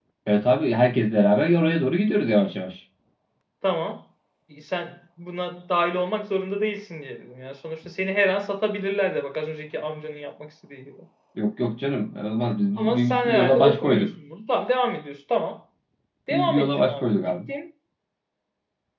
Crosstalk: present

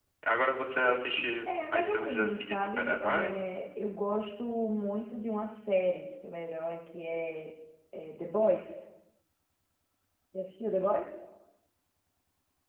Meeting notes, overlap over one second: present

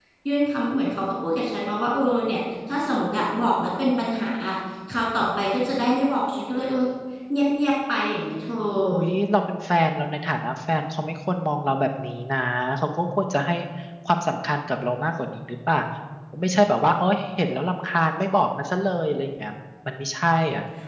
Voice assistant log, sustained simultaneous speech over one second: none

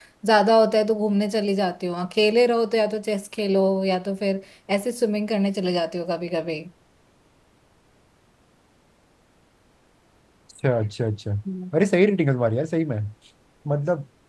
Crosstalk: none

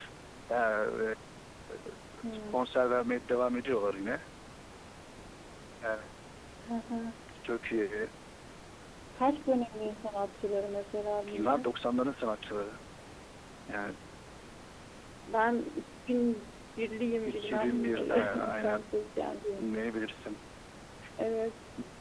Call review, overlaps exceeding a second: present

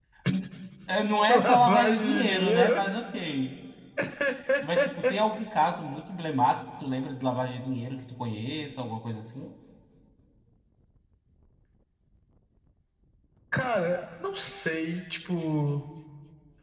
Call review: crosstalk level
present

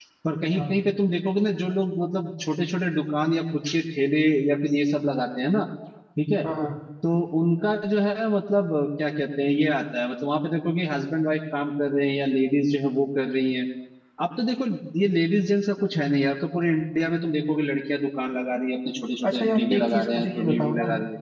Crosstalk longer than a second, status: present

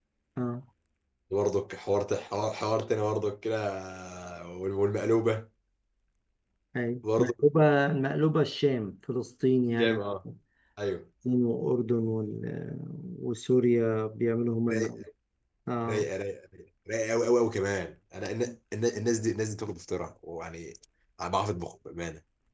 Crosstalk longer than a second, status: none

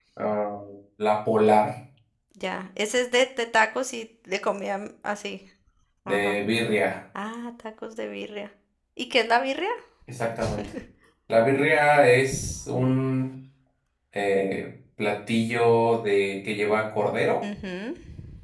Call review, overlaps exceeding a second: none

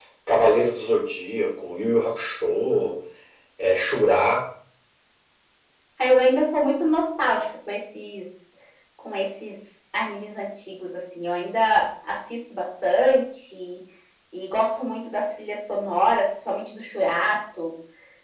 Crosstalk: none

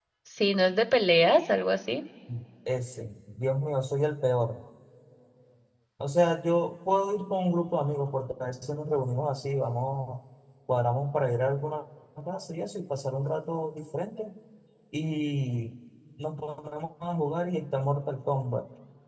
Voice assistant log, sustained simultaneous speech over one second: none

